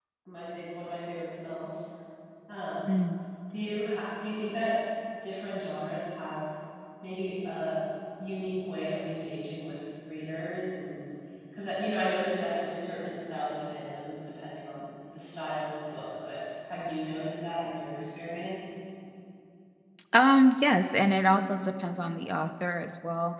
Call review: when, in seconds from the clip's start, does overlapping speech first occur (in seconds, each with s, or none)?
none